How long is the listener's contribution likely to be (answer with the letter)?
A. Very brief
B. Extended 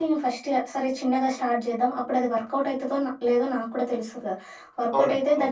A